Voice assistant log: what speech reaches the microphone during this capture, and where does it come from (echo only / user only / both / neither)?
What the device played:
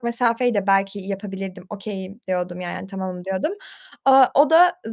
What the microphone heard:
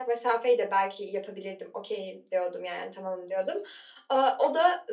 echo only